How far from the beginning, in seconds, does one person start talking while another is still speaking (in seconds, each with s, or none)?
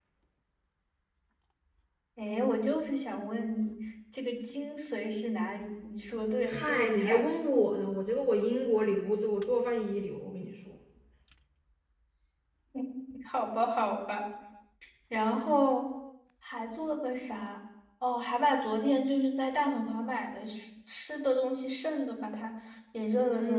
6.5 s